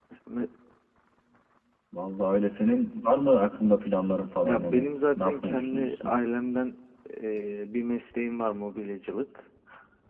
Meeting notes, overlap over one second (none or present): present